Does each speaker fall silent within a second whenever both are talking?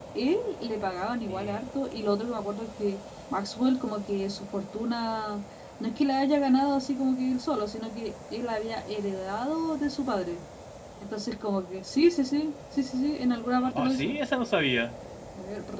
Yes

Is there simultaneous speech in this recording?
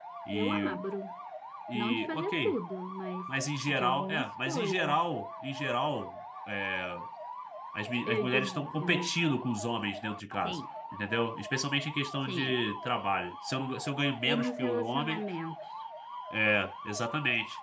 Yes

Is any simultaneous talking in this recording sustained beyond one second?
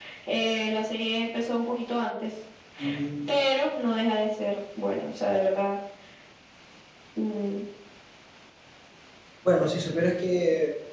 No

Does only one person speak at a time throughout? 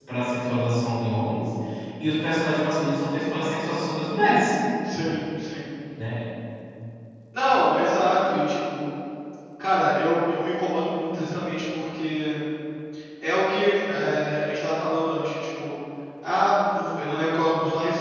Yes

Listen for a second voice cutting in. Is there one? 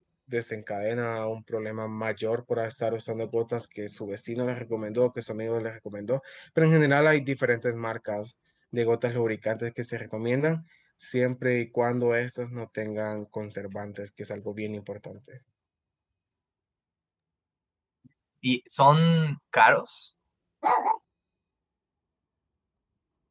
No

